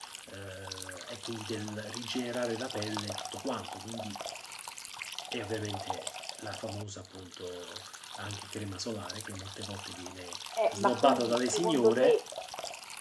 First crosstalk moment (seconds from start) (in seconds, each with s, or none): 10.6 s